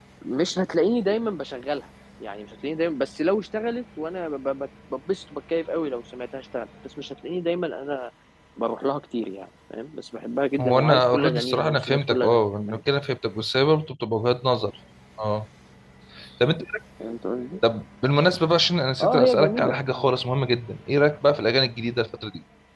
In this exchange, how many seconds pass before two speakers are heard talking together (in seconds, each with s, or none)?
10.6 s